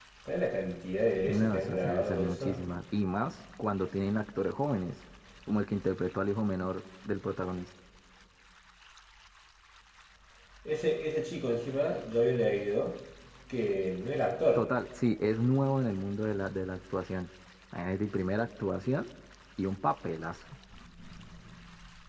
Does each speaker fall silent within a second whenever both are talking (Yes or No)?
No